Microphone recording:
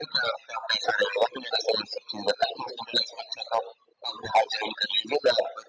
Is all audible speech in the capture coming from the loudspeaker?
Yes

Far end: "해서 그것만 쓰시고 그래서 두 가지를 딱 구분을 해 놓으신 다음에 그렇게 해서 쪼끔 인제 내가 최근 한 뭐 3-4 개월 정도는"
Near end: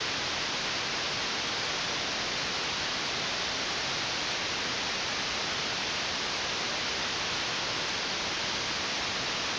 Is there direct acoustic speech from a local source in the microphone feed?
No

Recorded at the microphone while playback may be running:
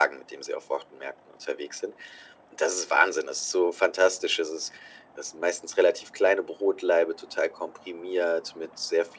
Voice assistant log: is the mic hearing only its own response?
Yes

